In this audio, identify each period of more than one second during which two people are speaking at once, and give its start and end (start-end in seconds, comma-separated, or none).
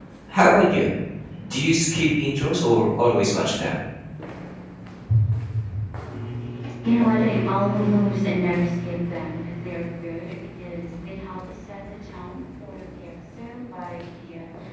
none